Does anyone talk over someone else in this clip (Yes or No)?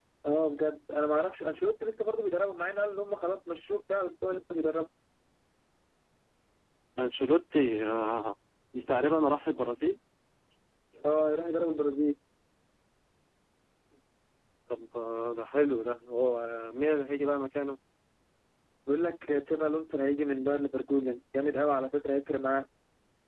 No